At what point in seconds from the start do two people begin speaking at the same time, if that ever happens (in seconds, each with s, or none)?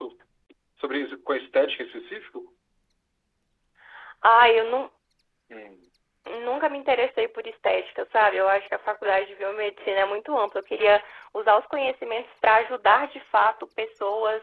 none